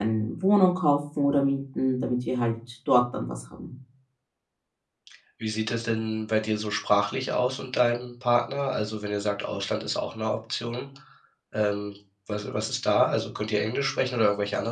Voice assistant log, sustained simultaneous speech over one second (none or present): none